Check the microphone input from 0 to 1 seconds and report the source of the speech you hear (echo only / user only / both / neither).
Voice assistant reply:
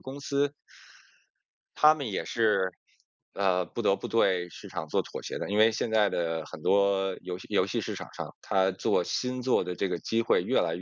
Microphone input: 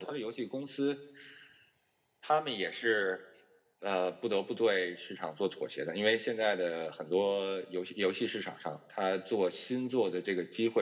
echo only